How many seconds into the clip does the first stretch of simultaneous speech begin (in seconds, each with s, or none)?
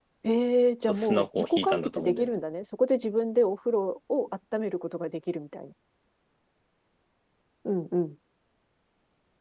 0.9 s